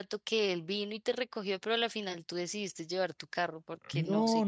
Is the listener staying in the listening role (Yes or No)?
No